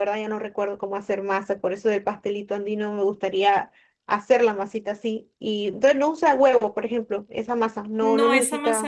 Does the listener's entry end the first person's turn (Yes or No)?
Yes